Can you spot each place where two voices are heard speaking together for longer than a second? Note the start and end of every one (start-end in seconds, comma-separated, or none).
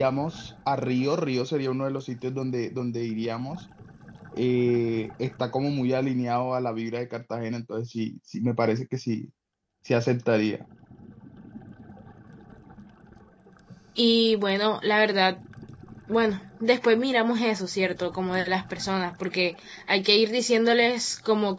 none